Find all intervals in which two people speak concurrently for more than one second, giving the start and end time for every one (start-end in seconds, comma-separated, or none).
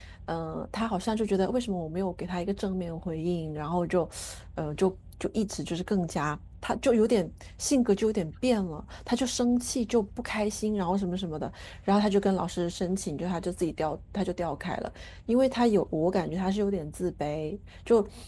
none